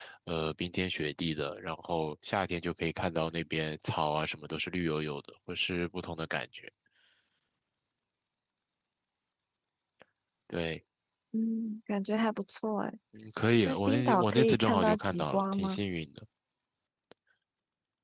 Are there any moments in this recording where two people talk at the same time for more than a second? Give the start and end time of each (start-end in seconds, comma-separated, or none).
13.6-15.8